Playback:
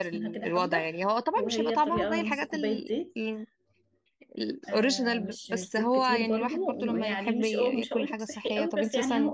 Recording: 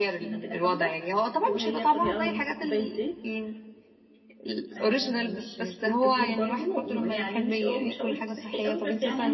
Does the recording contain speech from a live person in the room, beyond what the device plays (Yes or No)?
No